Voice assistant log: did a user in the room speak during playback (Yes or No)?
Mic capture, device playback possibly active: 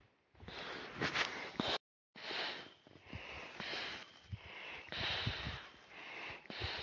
No